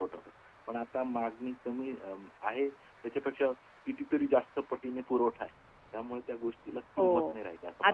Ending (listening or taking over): taking over